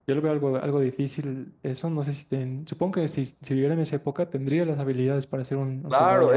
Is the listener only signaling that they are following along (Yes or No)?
No